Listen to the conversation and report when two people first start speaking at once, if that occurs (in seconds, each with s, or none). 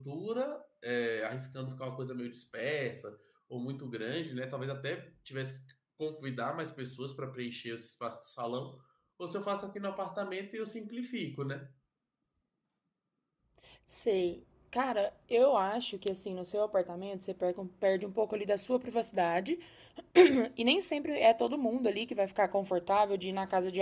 none